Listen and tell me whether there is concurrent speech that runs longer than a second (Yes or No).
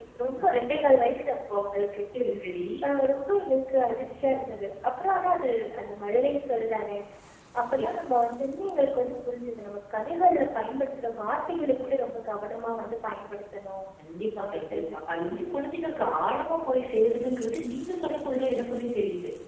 No